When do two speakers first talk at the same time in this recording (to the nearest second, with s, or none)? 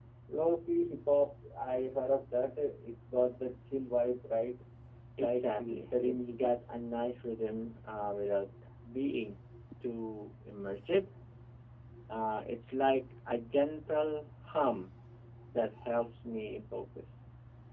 5 s